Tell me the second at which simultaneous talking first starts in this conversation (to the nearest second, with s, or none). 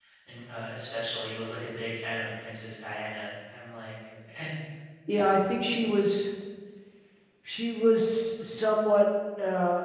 none